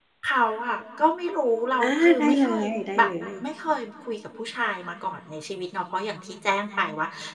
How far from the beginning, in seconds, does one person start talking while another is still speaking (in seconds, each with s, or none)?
1.8 s